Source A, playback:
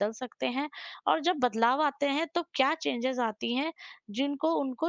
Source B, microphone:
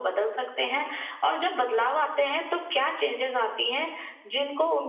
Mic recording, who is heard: echo only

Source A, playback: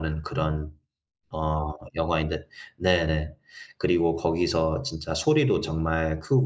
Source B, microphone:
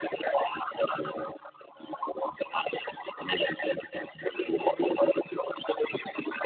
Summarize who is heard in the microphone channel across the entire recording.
both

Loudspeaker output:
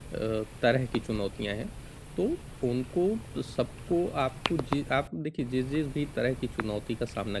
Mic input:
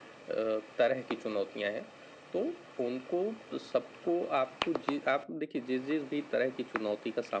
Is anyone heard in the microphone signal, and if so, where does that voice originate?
echo only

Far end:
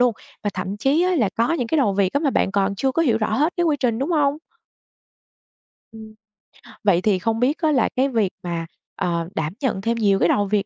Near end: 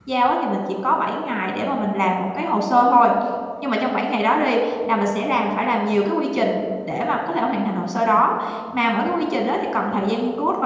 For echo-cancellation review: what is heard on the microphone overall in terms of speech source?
user only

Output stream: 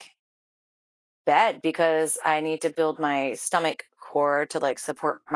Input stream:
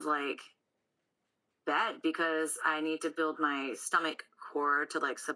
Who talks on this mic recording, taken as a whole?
echo only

